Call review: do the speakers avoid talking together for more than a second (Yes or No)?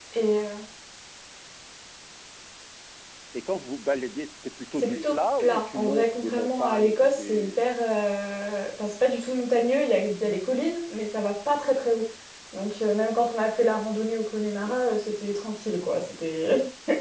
No